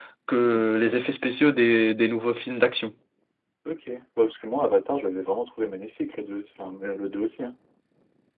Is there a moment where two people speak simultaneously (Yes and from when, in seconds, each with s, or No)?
No